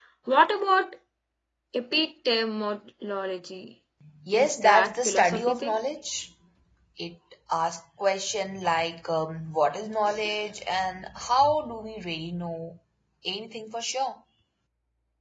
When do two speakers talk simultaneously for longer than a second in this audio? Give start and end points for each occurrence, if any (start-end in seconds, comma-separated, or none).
4.3-5.8